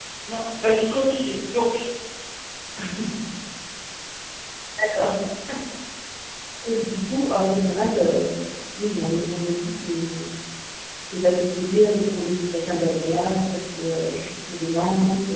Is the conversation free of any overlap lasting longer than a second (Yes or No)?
Yes